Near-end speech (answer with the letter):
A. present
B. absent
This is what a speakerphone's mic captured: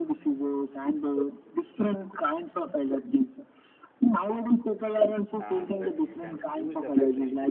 A